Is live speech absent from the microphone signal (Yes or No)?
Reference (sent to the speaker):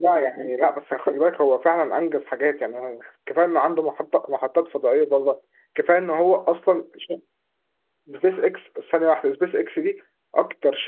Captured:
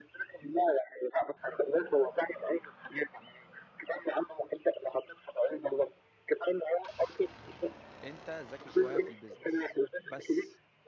No